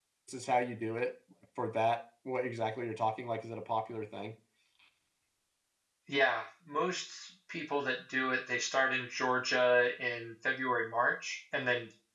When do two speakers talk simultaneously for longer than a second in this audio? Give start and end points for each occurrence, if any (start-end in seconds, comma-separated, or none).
none